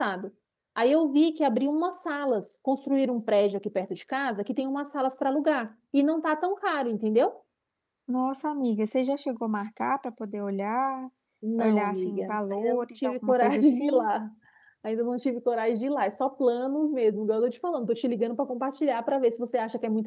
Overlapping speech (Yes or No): Yes